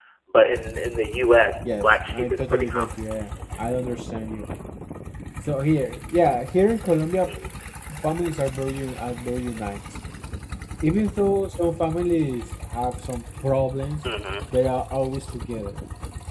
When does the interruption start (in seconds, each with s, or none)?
1.6 s